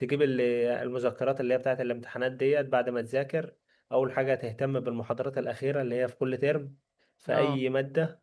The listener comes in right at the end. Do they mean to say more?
No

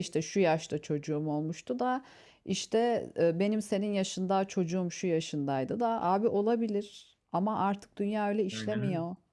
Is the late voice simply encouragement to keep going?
No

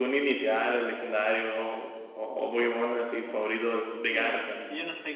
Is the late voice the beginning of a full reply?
Yes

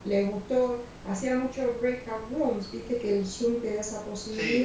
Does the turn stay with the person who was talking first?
Yes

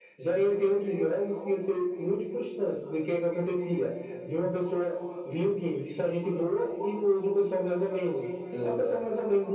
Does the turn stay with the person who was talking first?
Yes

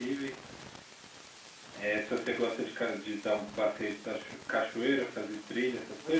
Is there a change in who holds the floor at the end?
Yes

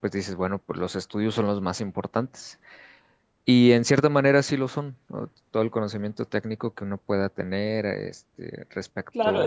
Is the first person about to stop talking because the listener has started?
Yes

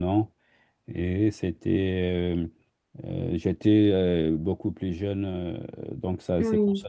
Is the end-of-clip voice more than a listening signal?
No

